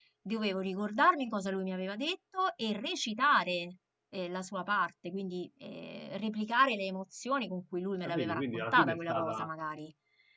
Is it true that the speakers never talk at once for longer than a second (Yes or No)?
No